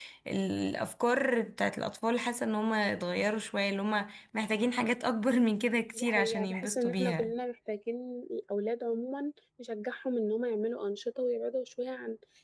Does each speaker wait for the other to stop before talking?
No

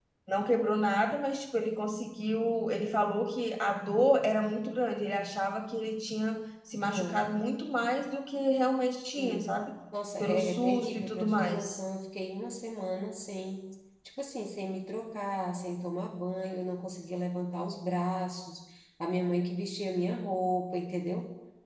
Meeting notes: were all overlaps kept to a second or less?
No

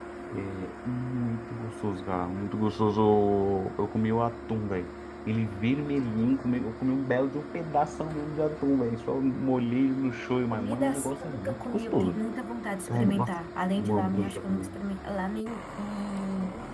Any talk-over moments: Yes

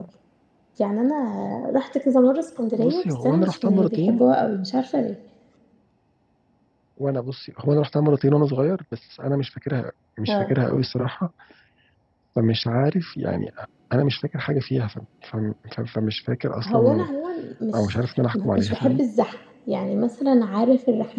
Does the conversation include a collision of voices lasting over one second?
Yes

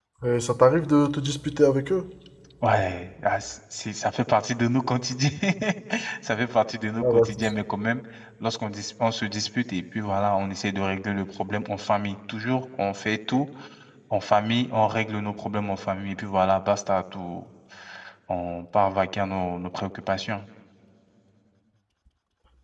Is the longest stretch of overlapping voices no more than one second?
Yes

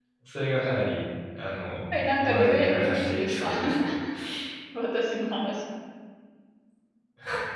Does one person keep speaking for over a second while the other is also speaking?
Yes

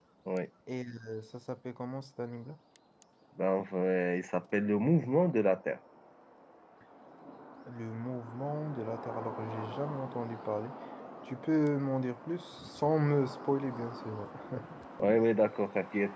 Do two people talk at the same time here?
No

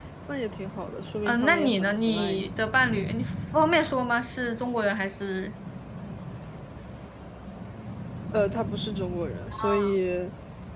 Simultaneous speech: Yes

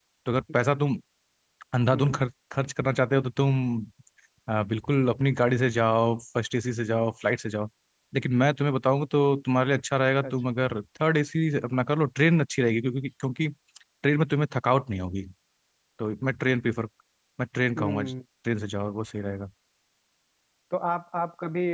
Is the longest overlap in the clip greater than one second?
No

